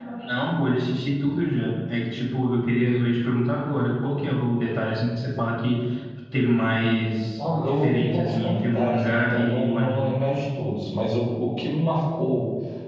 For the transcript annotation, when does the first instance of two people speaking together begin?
7 s

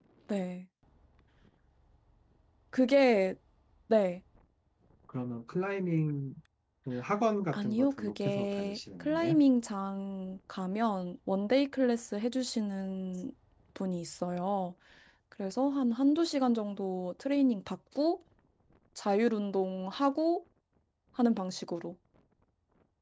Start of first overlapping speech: 8 s

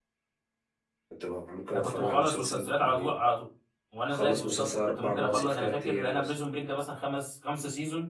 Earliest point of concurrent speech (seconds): 2 s

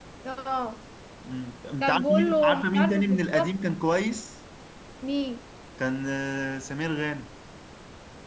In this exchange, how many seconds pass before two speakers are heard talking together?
2 s

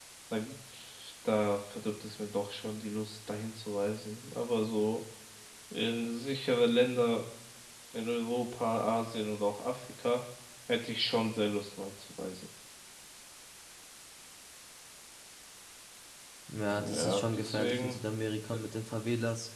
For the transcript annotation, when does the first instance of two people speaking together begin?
17 s

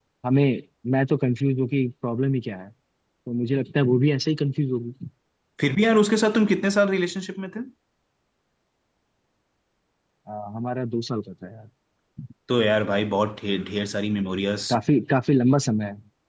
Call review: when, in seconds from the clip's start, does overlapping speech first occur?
none

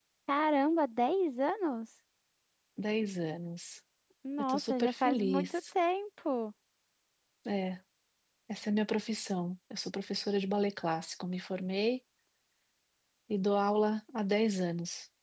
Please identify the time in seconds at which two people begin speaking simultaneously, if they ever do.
4 s

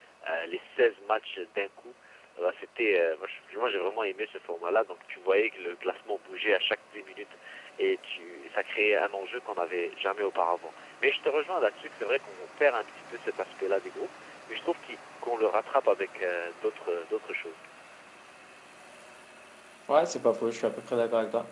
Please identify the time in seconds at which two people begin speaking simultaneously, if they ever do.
none

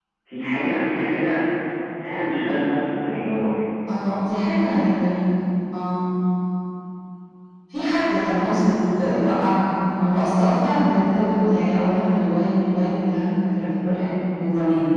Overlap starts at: none

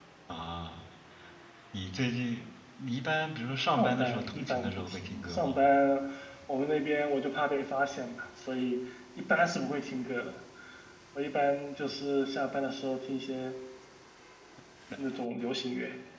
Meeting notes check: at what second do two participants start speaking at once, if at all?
4 s

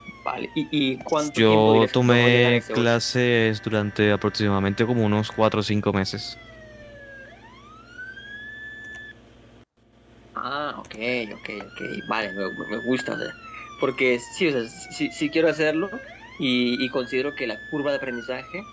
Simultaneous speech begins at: 1 s

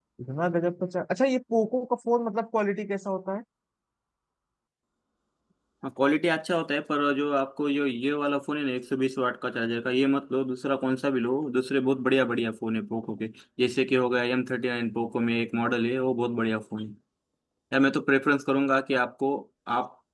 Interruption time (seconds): none

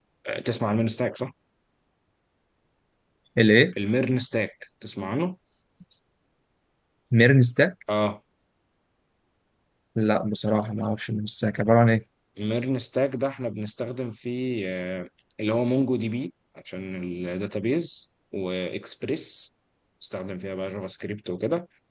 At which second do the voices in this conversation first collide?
none

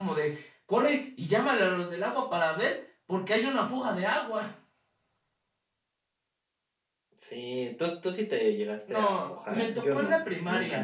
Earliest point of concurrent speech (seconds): 9 s

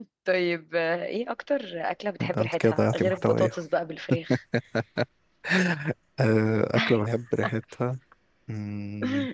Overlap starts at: 2 s

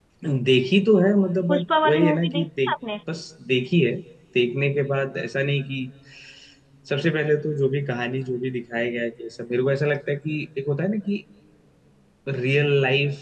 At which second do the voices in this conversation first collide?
1 s

